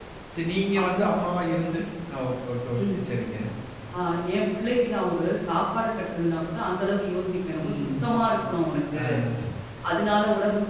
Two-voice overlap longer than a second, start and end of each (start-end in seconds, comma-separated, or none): none